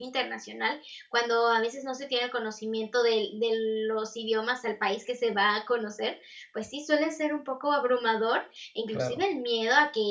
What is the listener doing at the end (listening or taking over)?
listening